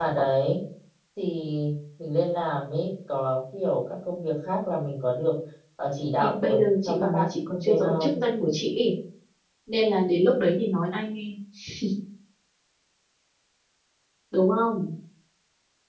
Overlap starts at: 6.2 s

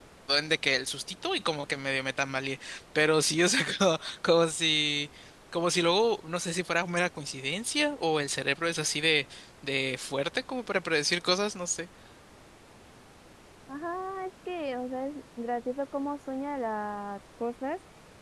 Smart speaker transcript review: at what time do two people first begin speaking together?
none

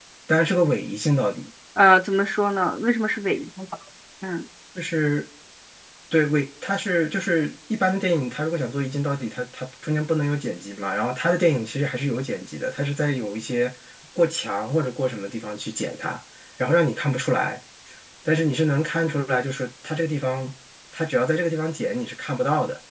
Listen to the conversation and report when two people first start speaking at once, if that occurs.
none

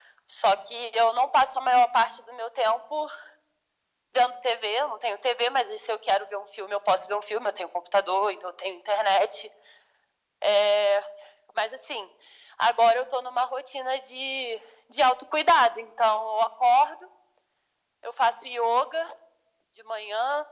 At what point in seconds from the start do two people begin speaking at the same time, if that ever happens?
none

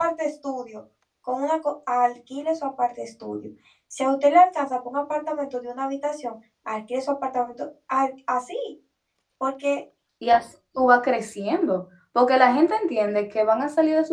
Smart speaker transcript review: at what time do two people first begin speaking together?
none

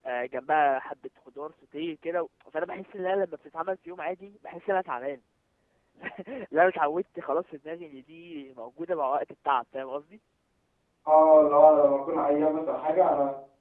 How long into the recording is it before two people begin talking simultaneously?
none

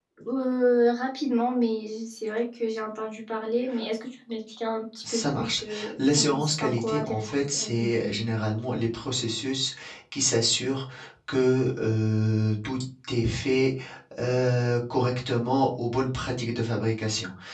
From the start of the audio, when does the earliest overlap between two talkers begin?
5.0 s

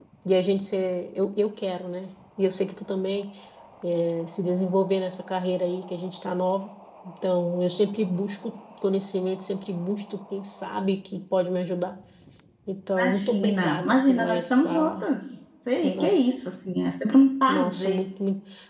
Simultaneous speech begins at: 12.9 s

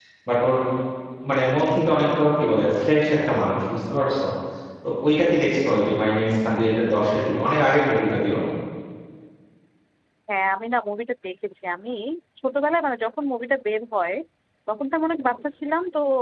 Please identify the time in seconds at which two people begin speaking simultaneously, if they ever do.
none

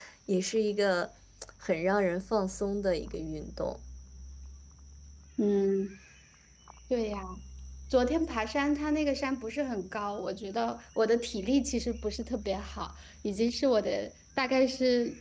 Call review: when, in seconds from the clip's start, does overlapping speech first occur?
none

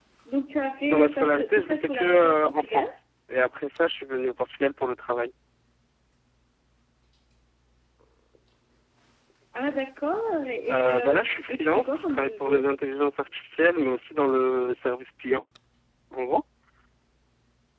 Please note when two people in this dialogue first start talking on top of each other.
0.9 s

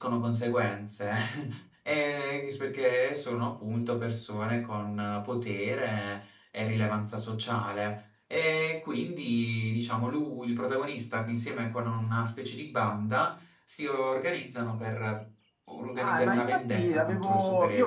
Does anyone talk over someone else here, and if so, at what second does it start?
16.0 s

